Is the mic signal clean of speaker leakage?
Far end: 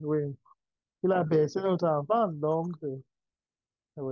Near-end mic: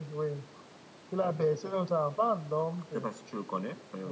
No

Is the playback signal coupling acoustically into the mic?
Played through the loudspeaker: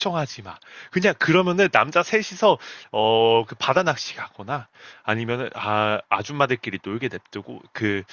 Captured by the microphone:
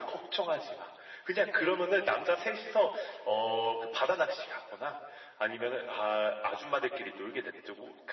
Yes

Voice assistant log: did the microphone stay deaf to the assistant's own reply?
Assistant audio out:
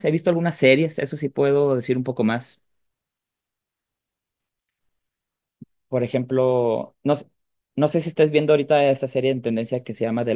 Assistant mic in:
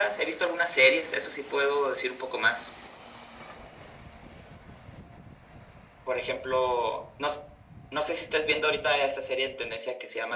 No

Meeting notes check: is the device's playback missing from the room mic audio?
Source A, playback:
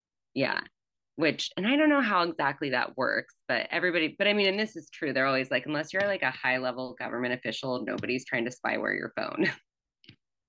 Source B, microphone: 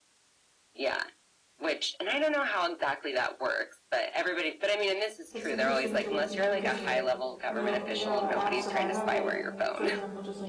No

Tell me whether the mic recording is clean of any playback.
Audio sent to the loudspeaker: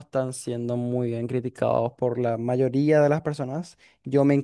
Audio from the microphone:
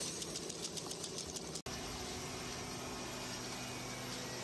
Yes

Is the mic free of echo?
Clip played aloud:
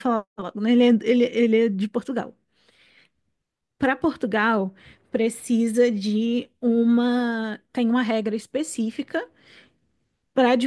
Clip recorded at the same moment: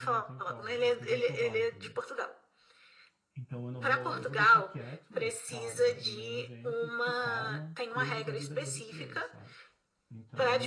No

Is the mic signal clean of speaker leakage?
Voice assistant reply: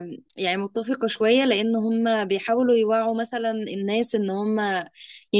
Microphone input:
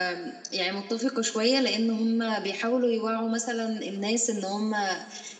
No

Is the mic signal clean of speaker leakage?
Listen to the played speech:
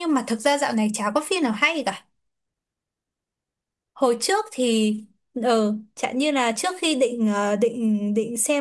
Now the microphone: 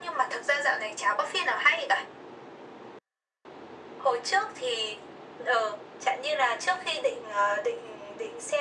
No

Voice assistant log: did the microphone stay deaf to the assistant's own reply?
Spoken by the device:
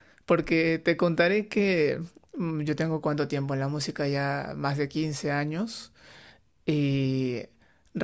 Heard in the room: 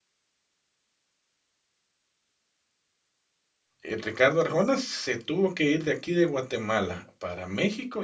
Yes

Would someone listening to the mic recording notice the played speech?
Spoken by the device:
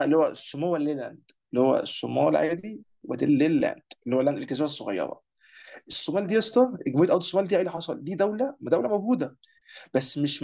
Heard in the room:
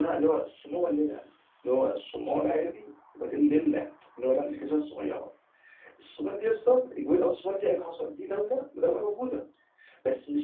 Yes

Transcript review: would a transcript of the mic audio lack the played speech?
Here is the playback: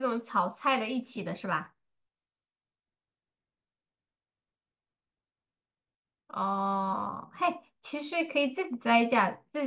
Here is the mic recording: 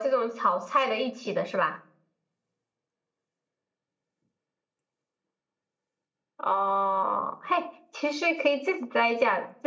No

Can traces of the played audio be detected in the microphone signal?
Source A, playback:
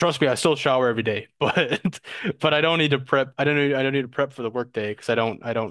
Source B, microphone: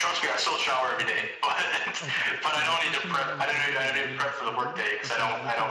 Yes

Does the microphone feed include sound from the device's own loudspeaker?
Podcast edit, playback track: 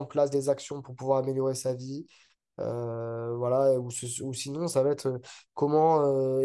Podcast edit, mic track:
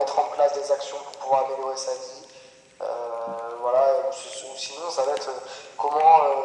Yes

